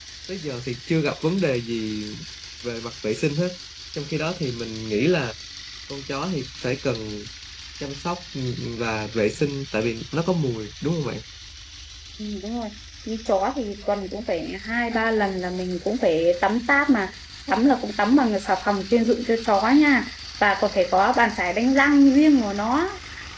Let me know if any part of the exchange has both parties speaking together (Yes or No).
No